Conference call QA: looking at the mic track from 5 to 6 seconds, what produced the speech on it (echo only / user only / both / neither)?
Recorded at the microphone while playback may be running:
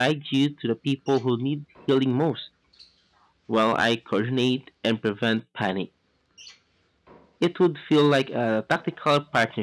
user only